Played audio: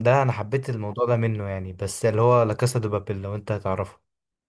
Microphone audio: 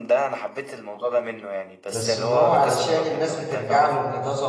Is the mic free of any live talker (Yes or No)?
No